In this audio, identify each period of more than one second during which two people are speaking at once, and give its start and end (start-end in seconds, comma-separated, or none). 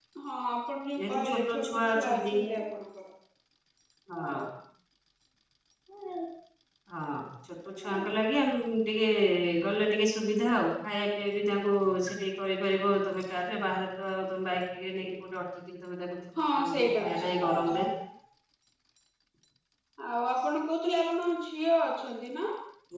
1.0-2.3, 16.5-17.8